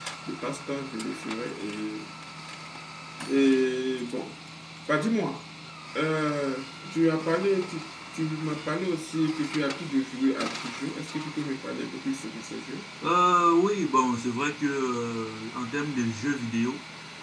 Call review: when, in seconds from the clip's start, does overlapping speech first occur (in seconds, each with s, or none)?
none